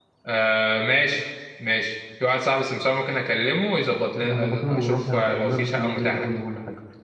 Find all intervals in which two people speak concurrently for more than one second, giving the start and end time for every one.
4.2-6.3

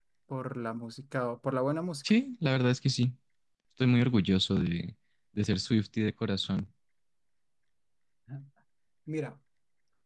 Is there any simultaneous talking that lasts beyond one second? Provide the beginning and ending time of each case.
none

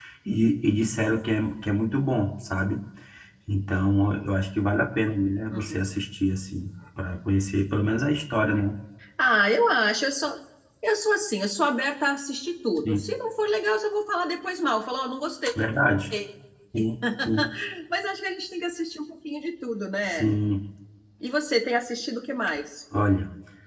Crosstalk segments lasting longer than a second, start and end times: none

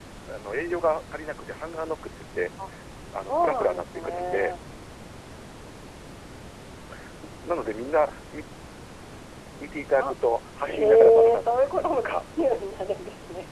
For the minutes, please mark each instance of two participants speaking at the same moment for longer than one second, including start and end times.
3.3-4.5, 10.6-12.2

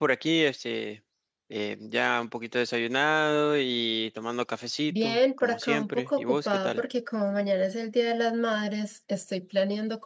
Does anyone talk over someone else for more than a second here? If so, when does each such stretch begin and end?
4.9-6.8

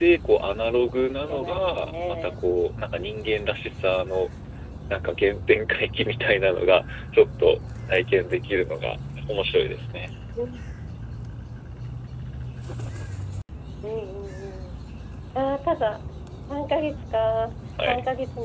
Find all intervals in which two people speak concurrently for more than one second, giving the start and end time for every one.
0.8-2.3

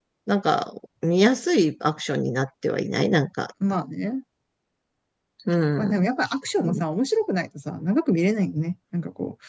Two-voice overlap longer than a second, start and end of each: none

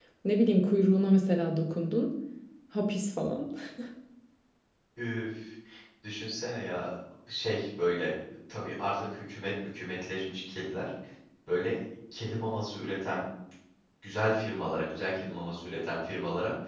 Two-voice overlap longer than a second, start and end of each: none

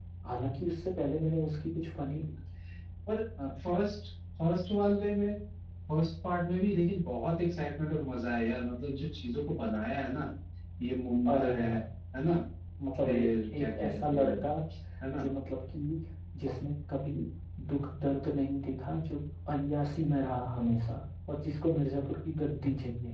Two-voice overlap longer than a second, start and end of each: 13.0-14.5

